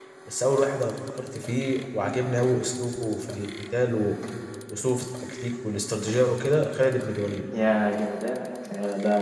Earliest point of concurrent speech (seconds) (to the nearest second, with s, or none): none